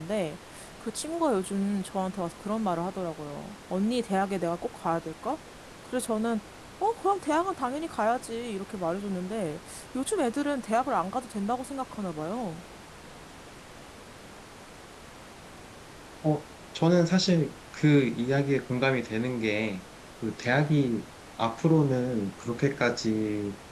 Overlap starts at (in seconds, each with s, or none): none